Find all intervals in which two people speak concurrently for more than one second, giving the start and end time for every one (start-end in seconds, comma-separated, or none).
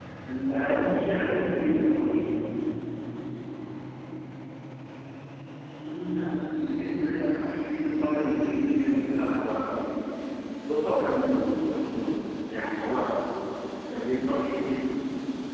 0.5-1.9